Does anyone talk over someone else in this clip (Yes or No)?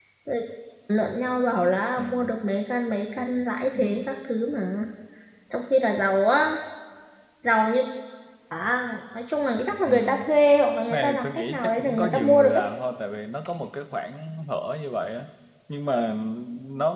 Yes